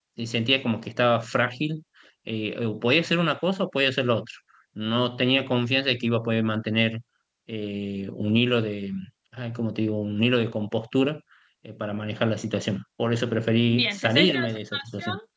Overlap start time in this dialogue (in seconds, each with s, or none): 13.7 s